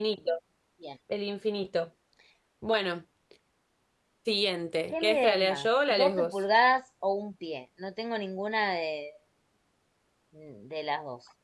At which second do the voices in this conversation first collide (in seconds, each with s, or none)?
4.9 s